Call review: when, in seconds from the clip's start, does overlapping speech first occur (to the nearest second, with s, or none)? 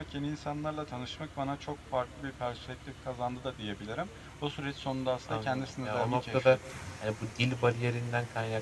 5 s